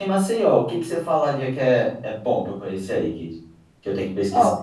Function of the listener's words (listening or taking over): taking over